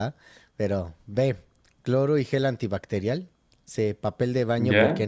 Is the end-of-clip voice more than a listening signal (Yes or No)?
No